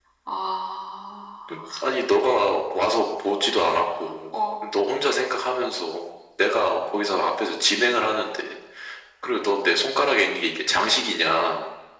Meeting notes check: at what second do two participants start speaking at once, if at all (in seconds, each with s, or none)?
none